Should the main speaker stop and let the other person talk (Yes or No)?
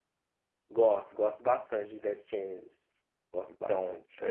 Yes